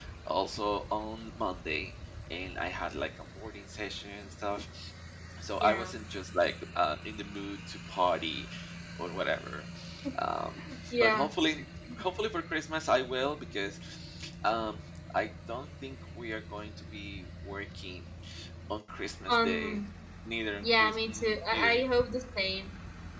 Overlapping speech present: Yes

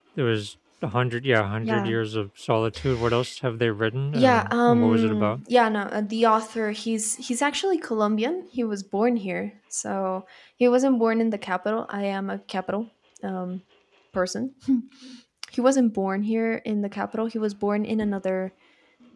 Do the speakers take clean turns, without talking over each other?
No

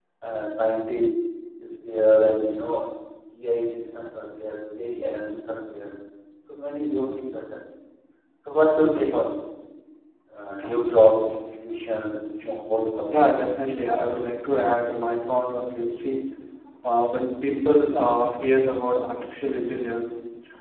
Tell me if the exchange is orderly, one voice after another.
Yes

